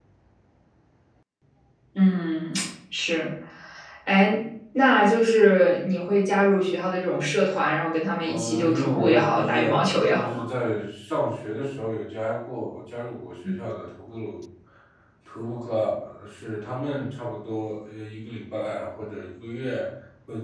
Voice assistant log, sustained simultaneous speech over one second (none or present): present